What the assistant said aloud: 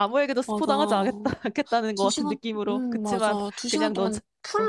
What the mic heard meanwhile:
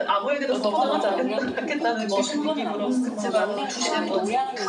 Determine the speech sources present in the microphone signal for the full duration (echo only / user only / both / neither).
both